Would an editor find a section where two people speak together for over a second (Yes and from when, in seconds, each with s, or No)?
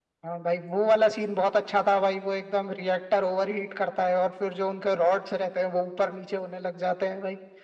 No